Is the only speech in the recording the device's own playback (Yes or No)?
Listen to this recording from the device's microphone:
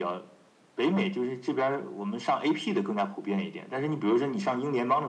Yes